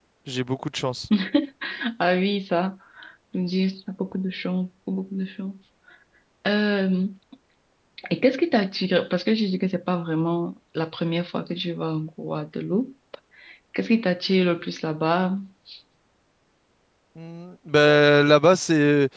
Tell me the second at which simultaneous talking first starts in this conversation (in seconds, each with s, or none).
none